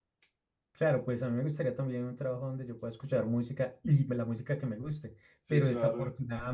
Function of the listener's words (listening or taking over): listening